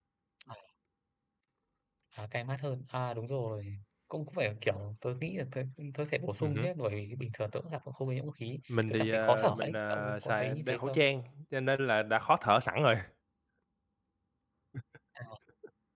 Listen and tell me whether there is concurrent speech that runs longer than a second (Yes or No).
Yes